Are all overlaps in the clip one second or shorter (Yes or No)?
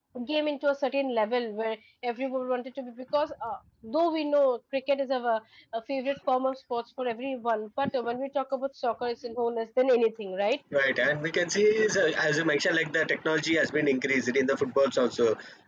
Yes